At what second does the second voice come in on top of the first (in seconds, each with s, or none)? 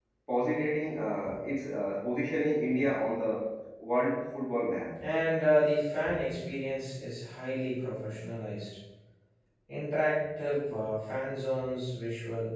none